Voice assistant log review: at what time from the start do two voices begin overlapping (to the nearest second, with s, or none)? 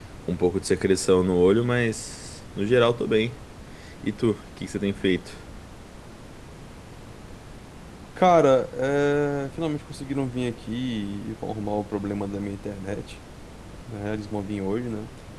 none